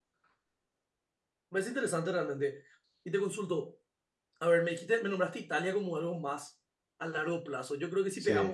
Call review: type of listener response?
listening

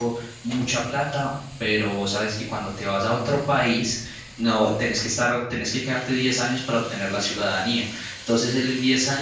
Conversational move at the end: listening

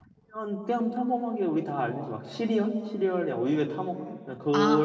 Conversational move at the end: taking over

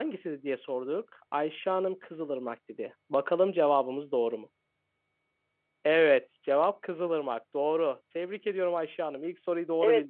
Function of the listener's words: taking over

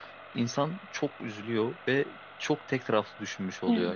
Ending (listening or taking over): listening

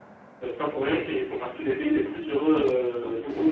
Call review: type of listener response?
taking over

